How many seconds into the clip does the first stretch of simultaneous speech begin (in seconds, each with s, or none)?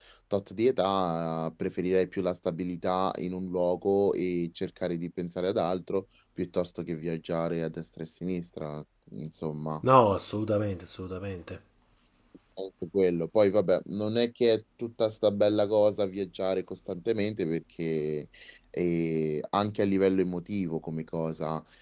none